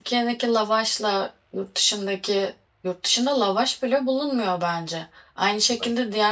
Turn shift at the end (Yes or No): No